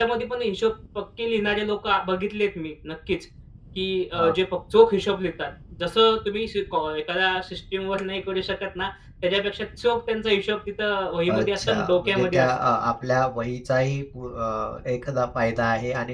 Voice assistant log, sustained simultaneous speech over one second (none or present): present